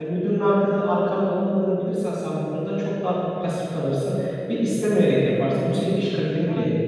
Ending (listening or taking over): taking over